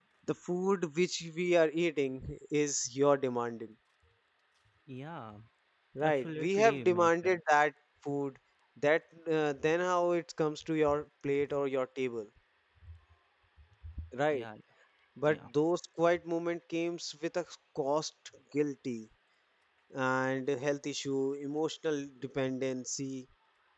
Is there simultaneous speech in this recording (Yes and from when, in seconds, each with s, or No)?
Yes, from 6.0 s